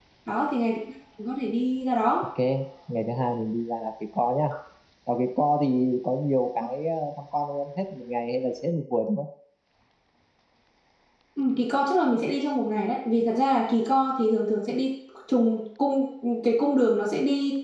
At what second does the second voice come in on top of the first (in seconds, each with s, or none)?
none